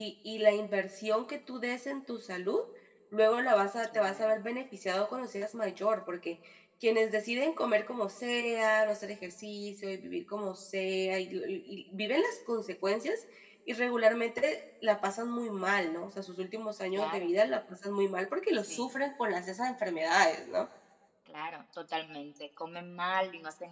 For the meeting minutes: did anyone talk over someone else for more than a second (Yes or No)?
No